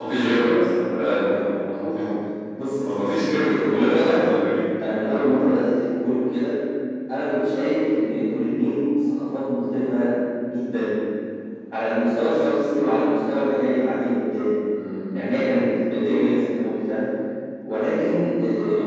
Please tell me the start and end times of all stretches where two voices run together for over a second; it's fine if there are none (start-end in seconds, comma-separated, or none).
2.8-4.2